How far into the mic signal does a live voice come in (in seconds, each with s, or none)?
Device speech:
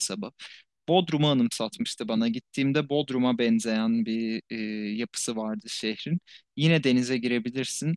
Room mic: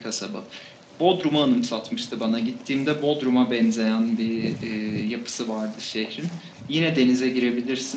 none